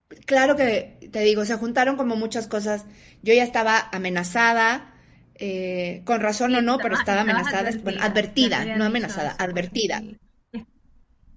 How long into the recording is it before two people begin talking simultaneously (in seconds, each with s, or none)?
6.5 s